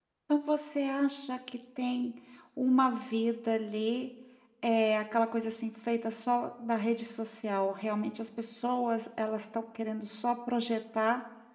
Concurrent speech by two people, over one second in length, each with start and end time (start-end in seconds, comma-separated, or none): none